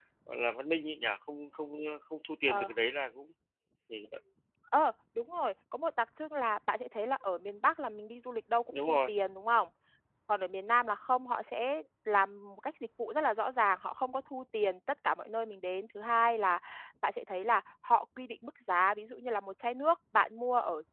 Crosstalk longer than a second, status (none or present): none